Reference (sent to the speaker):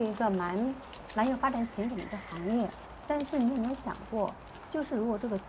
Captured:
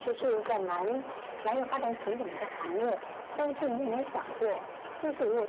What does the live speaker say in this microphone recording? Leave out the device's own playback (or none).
none